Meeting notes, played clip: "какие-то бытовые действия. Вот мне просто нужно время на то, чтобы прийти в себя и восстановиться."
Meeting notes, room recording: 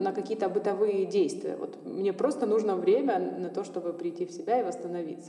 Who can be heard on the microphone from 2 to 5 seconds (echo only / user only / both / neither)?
echo only